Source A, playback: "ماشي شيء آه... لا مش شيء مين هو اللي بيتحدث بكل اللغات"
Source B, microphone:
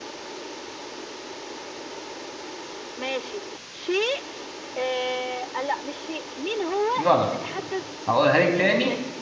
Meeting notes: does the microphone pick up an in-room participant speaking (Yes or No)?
Yes